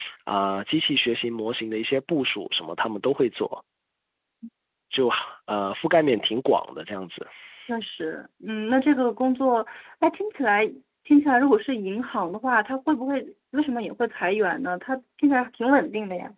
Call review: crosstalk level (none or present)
none